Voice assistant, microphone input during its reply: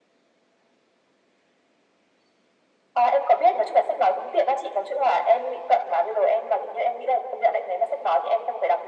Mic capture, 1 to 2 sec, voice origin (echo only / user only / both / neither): neither